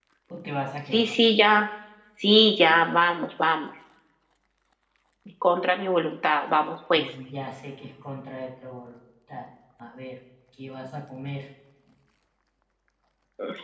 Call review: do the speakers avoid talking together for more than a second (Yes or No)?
Yes